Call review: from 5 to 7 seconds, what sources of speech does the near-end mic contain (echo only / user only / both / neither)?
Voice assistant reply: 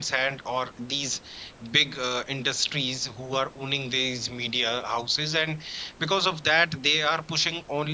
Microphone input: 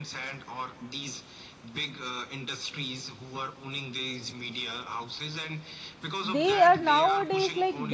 both